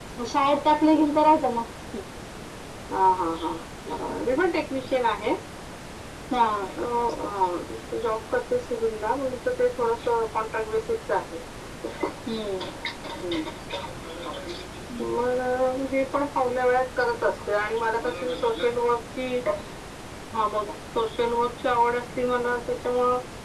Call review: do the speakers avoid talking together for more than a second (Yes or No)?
Yes